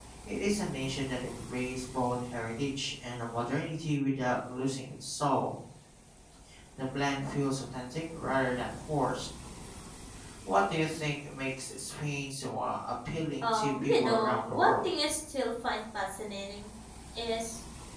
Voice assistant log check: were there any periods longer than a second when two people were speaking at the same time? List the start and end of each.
13.4-14.8

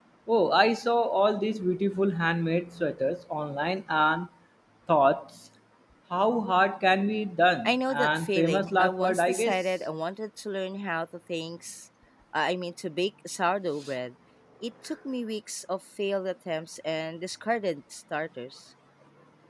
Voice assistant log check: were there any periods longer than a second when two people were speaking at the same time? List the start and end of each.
7.7-9.6

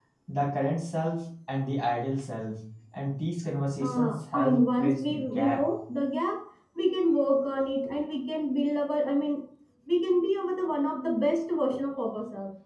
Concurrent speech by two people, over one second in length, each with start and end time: 3.8-5.7

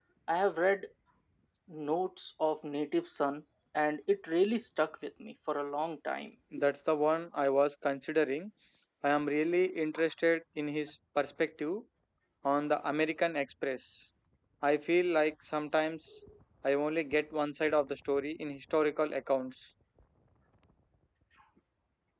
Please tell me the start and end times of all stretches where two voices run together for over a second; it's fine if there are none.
none

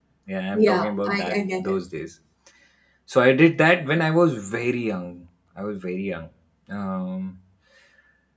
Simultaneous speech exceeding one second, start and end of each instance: 0.5-1.8

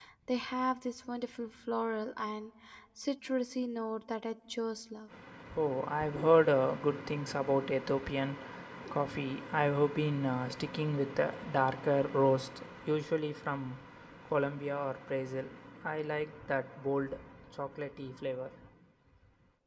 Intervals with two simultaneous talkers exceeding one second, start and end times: none

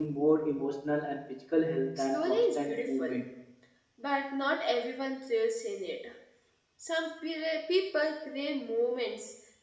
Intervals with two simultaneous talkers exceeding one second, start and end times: 2.0-3.2

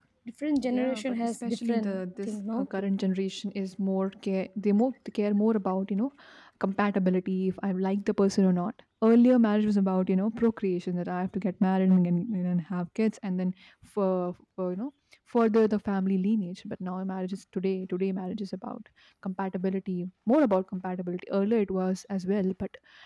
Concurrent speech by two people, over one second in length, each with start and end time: 0.8-2.7

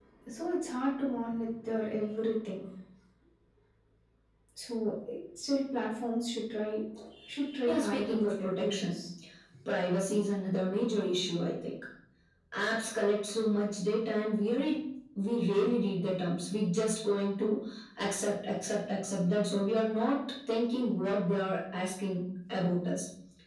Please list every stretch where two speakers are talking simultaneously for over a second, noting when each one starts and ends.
7.7-8.9

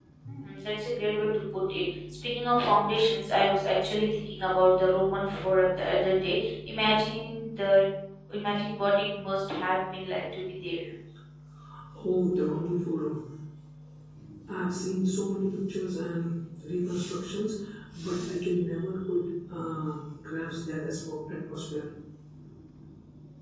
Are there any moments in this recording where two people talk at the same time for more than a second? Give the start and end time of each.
none

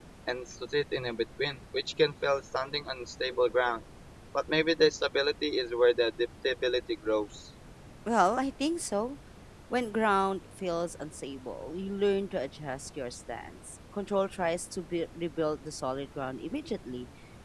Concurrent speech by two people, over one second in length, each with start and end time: none

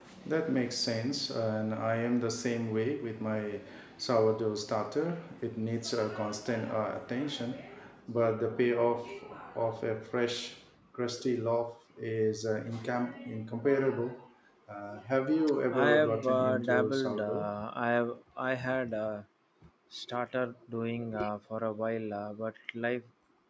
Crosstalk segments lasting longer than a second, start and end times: 15.7-17.5

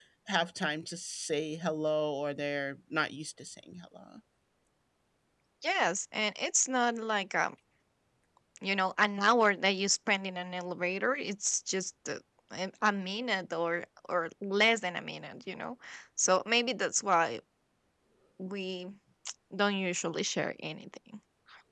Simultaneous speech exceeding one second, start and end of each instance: none

